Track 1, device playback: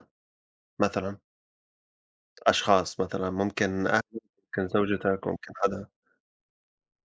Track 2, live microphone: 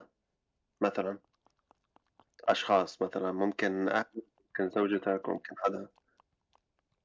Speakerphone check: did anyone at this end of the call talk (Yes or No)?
No